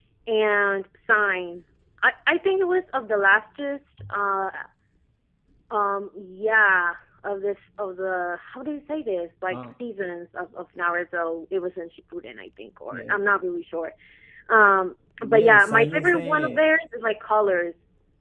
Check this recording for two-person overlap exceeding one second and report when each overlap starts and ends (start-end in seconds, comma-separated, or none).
15.2-16.6